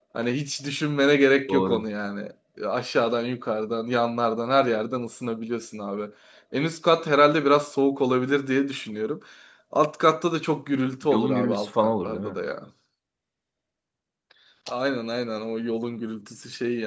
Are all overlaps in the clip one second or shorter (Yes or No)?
No